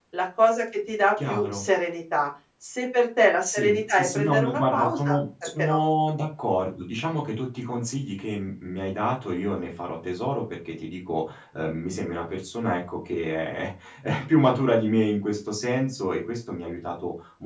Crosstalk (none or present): present